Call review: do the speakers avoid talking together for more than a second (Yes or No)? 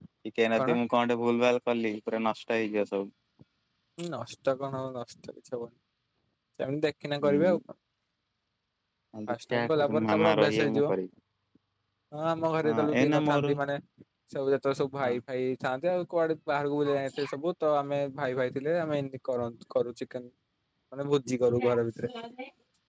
No